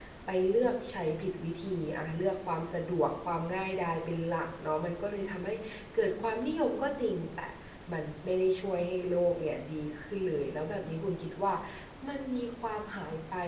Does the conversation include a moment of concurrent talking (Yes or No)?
No